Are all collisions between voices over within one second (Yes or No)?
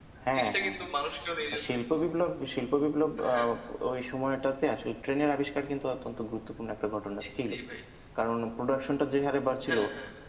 Yes